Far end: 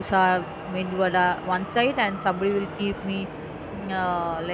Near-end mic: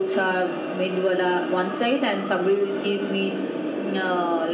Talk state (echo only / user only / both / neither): echo only